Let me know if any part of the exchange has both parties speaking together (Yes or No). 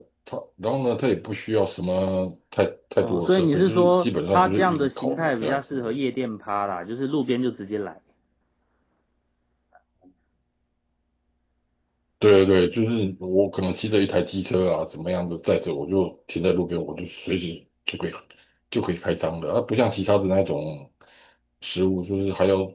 Yes